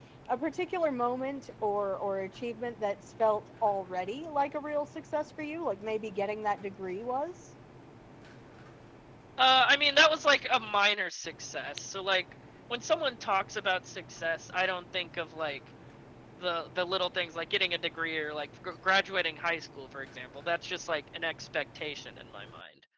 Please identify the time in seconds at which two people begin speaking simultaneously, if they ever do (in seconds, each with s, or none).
none